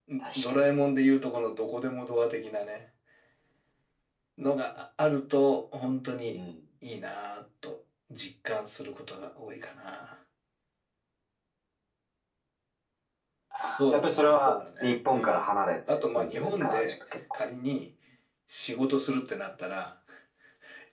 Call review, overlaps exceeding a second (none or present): present